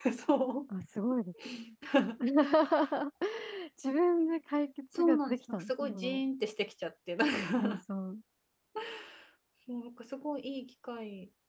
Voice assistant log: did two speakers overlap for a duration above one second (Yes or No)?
Yes